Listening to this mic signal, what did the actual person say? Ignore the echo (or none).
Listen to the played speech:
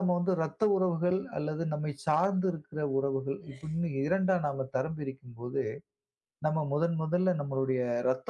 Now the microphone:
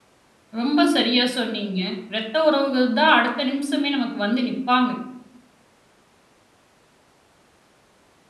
ரொம்ப சரியா சொன்னீங்க. ரத்த உறவுகள் தான் அடுத்த நிமிஷமே நமக்கு வந்து நிப்பாங்க.